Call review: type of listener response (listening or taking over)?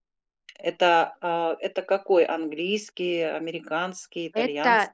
taking over